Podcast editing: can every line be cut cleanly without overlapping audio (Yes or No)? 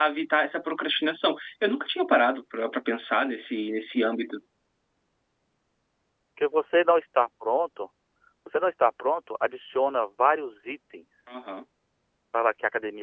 Yes